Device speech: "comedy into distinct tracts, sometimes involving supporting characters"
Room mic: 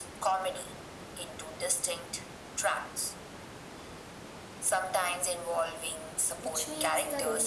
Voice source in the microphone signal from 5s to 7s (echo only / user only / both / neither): both